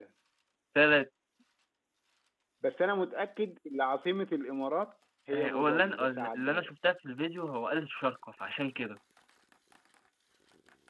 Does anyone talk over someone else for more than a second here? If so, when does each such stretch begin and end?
5.3-6.7

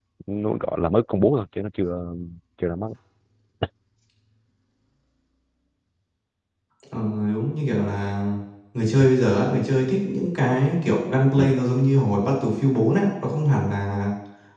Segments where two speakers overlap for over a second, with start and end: none

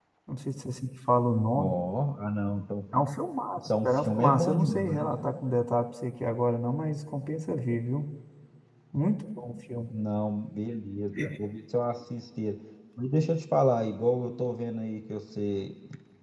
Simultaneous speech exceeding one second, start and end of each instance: 3.6-5.0

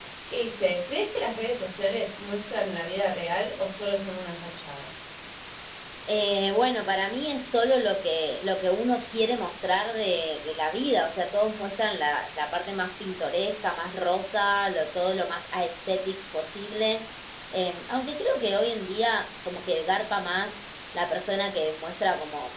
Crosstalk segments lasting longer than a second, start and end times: none

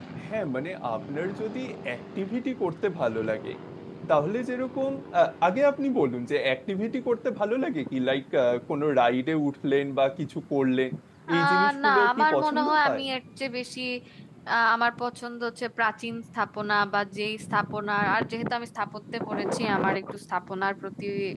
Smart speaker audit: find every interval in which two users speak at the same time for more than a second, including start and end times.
11.3-13.0

